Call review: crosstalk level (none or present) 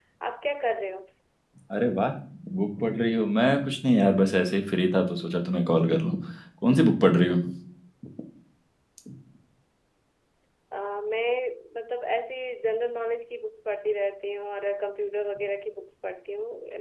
none